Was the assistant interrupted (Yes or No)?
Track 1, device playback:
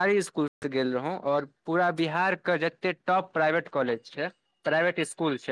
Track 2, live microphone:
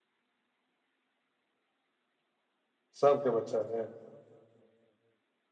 Yes